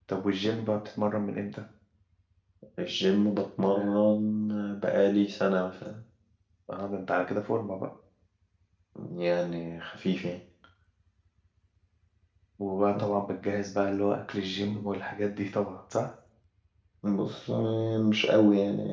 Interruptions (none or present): none